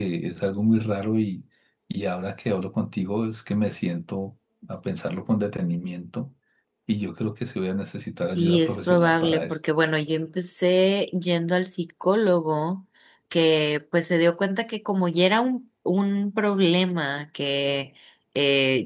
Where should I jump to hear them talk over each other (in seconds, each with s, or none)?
8.3 s